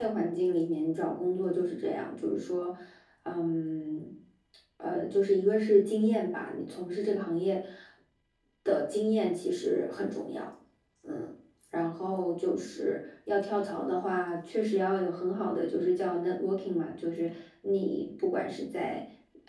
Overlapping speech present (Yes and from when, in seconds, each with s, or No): No